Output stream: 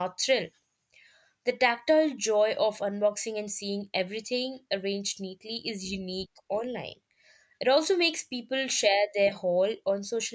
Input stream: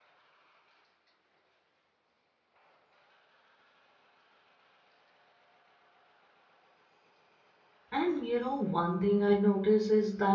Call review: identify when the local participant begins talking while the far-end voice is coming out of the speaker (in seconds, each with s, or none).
7.9 s